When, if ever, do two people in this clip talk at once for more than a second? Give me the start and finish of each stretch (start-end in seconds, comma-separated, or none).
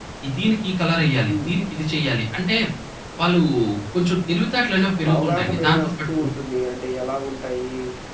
5.0-6.2